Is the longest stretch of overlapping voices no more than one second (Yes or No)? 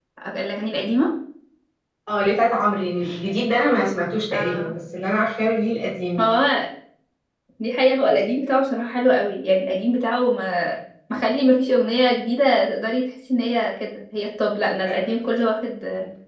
Yes